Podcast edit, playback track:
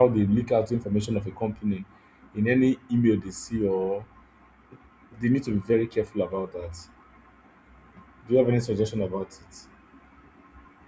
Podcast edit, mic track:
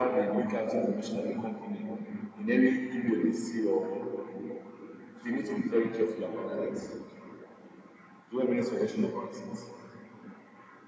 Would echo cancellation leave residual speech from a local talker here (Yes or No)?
Yes